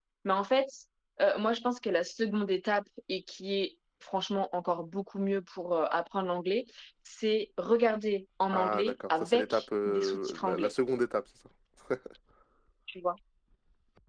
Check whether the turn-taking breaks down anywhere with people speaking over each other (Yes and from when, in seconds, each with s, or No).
Yes, from 8.5 s